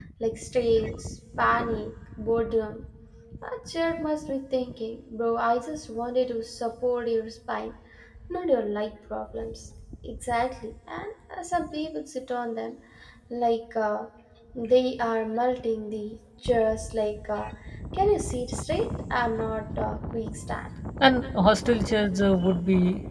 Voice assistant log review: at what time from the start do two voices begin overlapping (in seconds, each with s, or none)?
none